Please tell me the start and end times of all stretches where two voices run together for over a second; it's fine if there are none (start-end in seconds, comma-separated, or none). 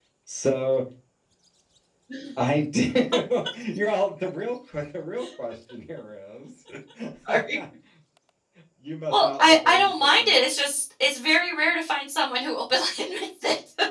9.1-10.4